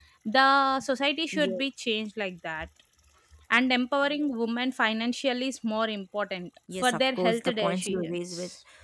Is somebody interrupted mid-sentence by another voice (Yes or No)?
Yes